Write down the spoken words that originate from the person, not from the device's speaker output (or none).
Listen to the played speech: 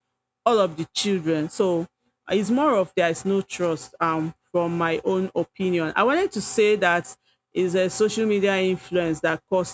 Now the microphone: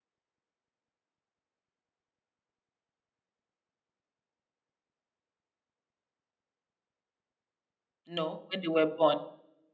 no, when they were born,